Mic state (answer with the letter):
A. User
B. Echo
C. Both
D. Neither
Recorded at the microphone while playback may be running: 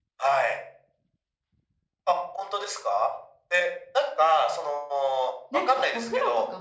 C